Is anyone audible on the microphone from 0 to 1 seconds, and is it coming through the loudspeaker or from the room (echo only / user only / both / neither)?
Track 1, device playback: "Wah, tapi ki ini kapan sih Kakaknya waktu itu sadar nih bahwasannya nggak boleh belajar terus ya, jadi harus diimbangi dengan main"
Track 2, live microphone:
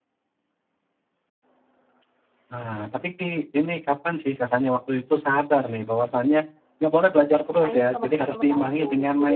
neither